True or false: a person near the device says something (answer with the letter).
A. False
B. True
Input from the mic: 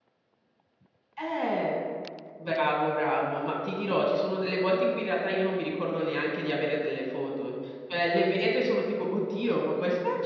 B